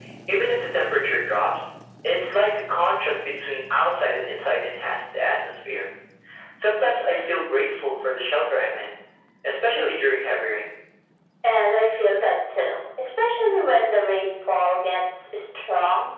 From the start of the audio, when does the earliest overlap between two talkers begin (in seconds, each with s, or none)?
none